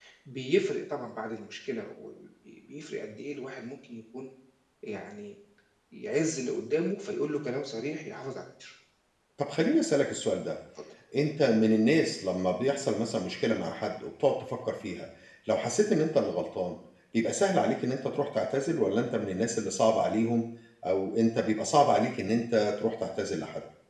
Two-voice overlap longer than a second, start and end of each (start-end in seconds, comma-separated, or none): none